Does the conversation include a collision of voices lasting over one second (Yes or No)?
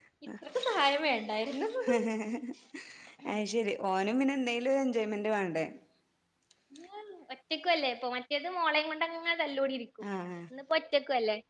No